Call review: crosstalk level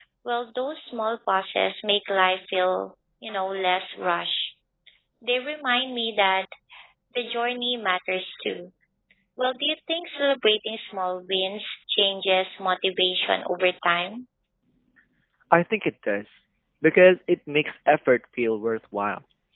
none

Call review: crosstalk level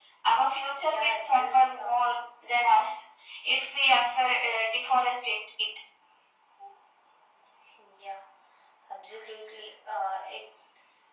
present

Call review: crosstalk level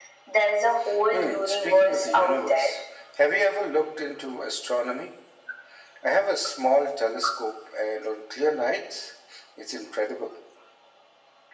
present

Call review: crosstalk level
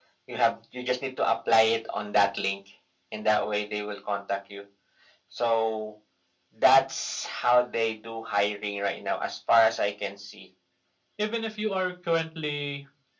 none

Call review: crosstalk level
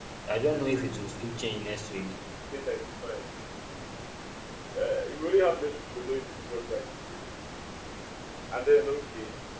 none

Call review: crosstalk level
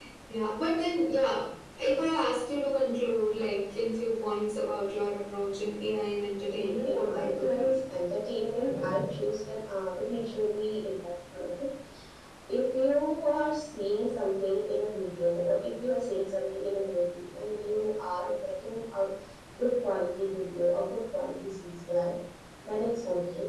present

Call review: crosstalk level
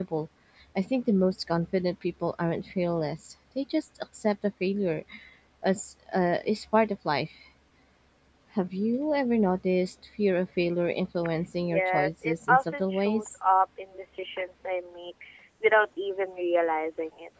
present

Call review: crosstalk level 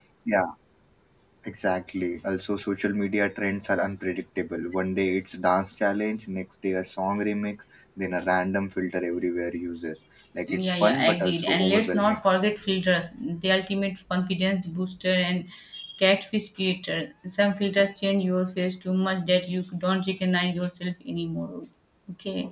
present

